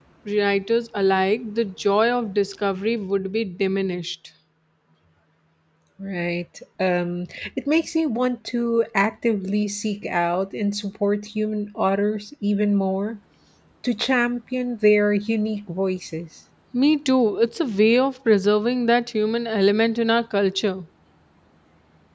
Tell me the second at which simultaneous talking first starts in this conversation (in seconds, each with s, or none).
none